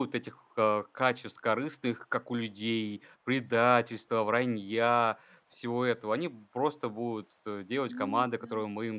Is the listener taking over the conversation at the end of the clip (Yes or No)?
No